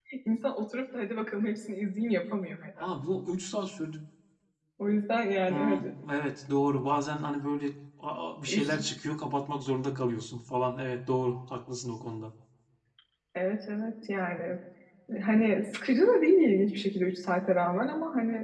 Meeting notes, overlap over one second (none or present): none